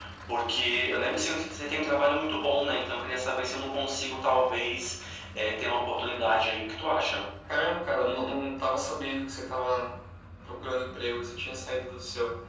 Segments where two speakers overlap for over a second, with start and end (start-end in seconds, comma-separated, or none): none